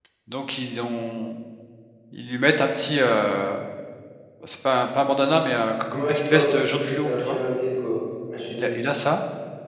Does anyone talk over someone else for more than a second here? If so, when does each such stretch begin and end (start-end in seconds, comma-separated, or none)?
5.9-7.4